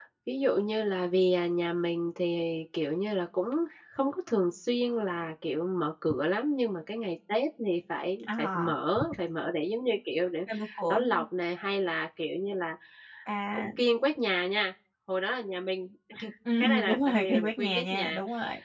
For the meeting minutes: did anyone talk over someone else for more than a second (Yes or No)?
Yes